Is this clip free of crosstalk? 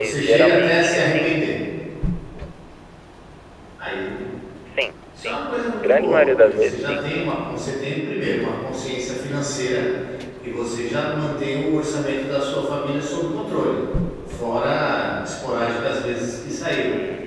No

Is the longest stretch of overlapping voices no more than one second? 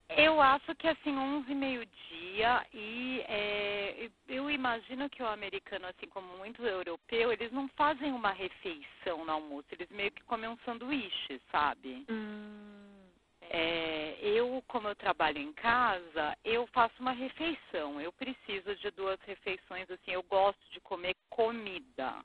Yes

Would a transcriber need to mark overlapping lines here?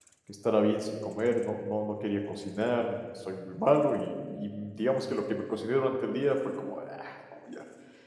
No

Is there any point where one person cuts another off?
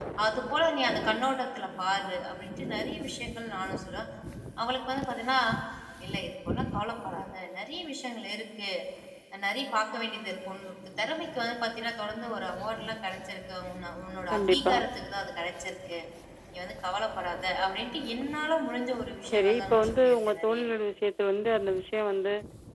Yes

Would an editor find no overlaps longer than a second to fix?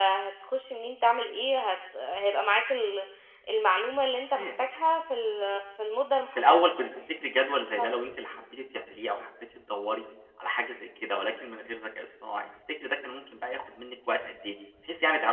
Yes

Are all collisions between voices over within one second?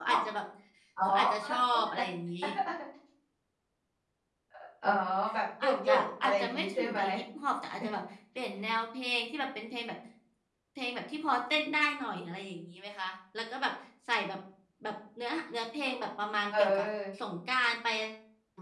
No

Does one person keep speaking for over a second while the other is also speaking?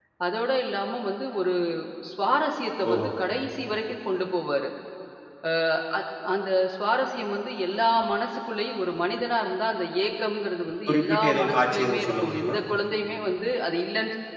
Yes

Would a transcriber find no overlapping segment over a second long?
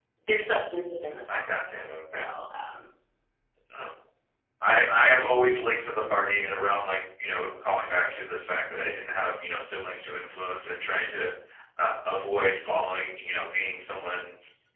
Yes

